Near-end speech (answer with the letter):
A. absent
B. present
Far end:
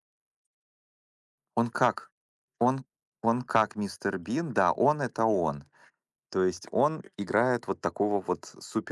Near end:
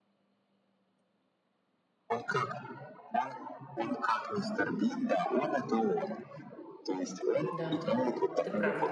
B